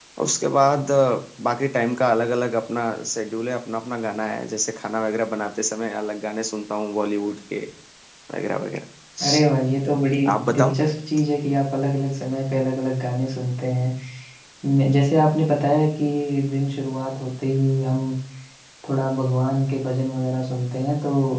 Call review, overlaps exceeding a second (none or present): none